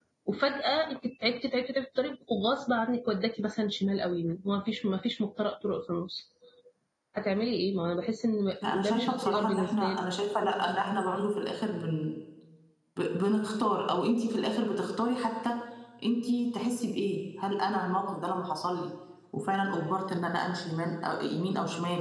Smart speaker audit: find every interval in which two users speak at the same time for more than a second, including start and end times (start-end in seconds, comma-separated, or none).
8.7-10.1